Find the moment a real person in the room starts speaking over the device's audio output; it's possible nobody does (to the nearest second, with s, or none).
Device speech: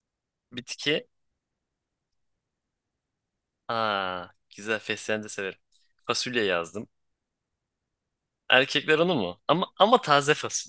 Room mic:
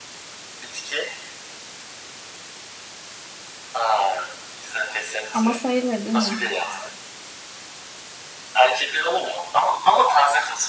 5 s